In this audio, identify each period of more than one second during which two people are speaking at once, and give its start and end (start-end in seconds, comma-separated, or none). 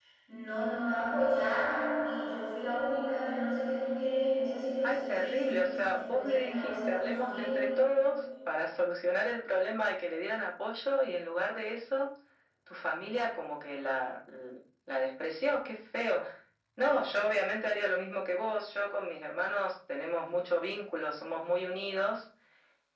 4.8-7.6